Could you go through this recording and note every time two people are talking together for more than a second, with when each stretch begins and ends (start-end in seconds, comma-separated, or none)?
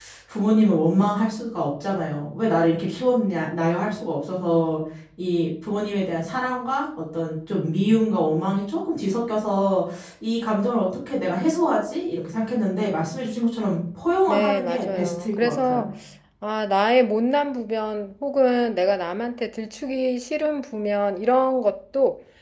14.3-15.9